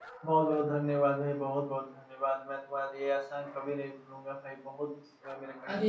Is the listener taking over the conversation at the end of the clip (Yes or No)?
Yes